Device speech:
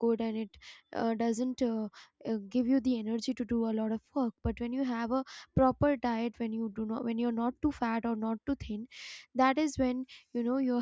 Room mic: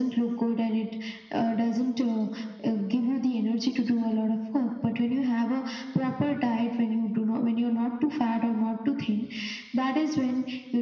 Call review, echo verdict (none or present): present